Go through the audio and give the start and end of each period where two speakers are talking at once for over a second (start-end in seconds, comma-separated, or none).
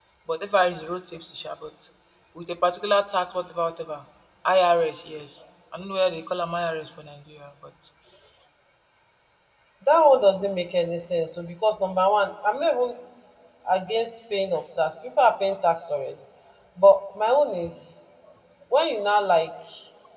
none